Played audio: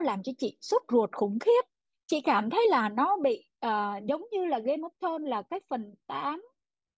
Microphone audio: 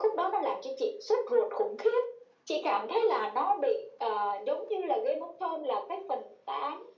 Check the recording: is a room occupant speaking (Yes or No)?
No